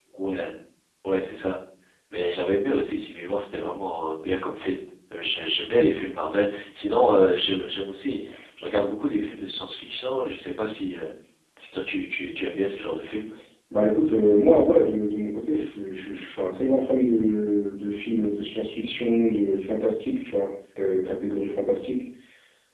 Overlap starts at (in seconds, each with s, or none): none